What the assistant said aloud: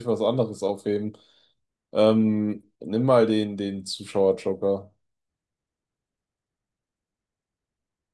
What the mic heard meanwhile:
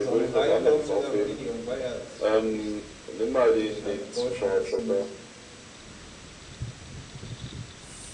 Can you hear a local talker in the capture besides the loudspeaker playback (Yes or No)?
Yes